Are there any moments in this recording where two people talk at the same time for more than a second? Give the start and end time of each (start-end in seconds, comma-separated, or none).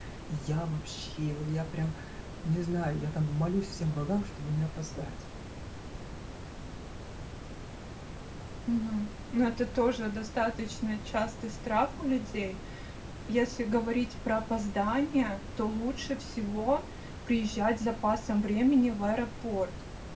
none